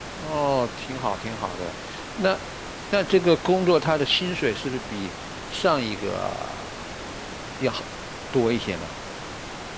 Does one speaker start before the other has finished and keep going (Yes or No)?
No